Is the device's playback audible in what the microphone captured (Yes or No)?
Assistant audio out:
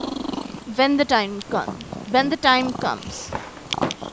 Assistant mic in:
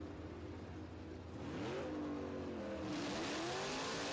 No